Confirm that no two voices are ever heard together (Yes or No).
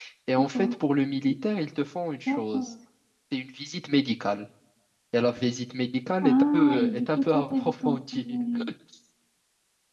No